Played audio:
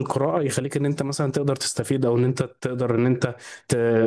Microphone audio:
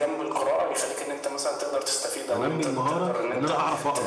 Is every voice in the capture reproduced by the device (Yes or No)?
No